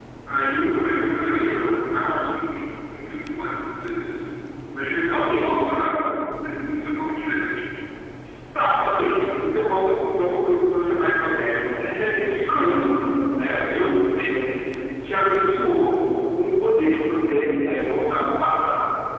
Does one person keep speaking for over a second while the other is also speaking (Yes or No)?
No